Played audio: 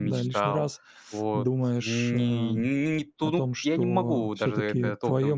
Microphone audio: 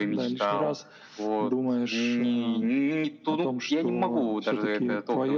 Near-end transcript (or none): none